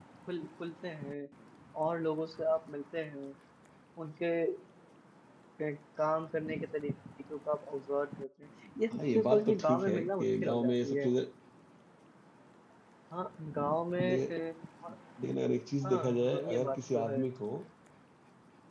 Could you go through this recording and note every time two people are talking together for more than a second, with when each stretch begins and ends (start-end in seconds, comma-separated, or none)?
8.9-11.1, 15.8-17.2